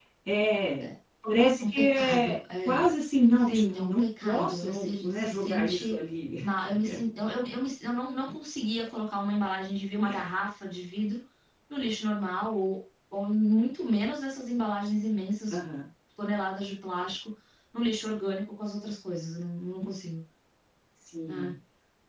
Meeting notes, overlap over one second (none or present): present